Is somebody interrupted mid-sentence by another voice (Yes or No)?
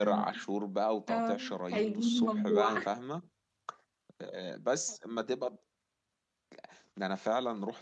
Yes